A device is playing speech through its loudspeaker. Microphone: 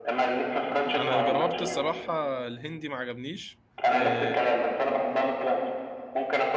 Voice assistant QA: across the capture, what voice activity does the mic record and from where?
both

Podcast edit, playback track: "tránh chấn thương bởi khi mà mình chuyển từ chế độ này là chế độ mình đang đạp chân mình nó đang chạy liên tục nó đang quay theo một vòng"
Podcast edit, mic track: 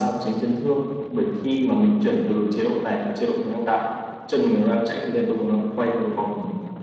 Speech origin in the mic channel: echo only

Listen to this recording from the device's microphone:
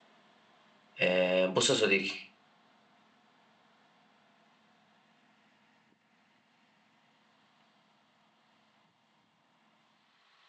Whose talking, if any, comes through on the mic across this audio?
user only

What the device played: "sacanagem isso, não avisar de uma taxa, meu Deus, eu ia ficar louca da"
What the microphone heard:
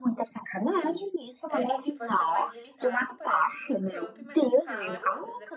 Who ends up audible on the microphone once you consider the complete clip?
both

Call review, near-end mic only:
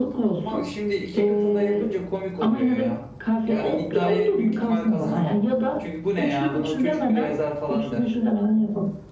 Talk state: both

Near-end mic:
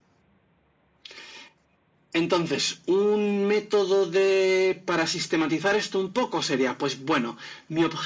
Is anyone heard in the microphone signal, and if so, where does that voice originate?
echo only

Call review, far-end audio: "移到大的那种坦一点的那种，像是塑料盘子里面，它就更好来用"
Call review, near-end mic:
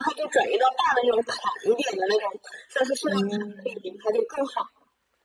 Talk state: both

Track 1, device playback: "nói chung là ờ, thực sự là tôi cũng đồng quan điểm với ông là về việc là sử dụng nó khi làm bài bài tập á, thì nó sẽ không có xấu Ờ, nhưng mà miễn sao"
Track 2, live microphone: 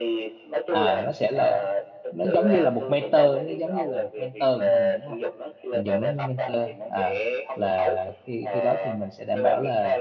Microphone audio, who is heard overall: both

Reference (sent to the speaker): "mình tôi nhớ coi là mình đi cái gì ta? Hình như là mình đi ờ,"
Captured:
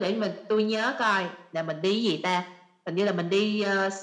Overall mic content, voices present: echo only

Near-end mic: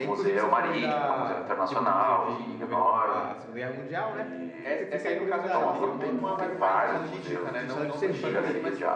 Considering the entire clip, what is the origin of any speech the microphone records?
both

